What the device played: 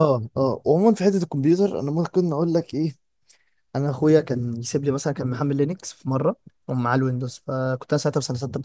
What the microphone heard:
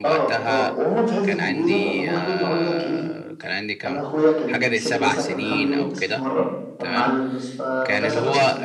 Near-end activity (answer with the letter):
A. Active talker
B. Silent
A